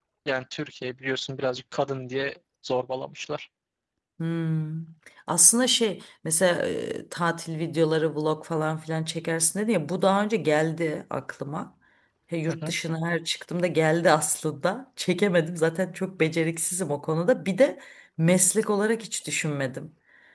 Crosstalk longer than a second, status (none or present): none